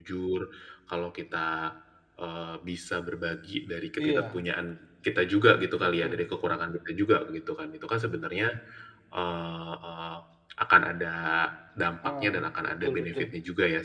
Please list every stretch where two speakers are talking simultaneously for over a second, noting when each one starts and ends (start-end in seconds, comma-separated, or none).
12.1-13.3